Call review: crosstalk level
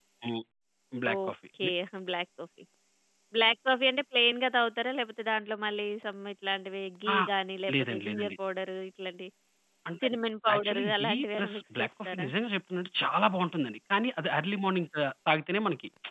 present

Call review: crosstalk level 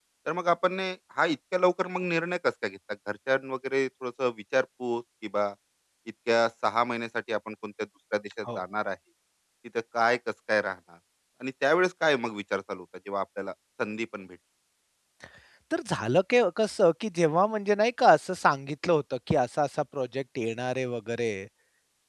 none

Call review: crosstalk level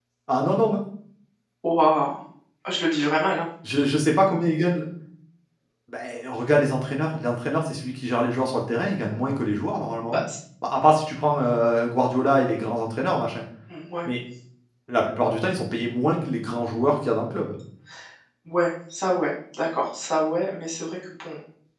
none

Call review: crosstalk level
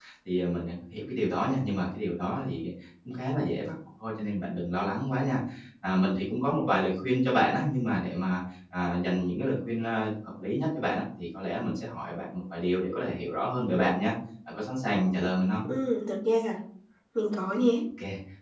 none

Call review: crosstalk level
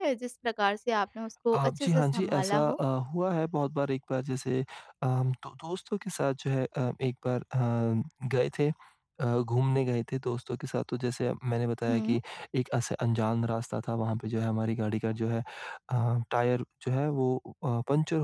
present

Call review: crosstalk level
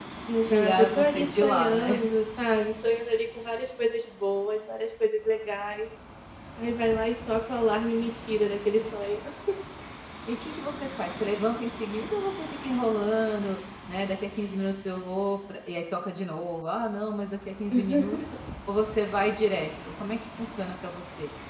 present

